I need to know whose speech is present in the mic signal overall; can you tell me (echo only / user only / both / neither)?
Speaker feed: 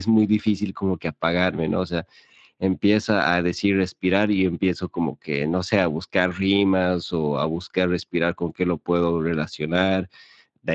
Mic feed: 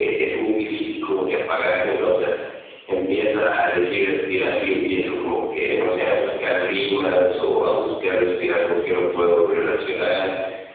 echo only